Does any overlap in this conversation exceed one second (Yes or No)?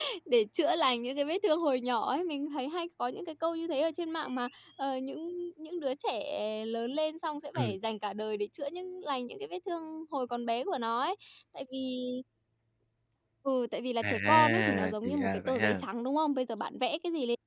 Yes